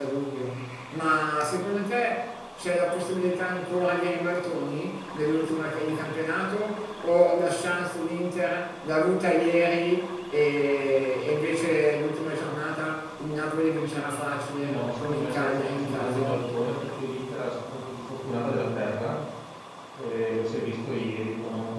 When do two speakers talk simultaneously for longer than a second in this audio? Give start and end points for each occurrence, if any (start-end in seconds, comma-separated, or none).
14.6-16.4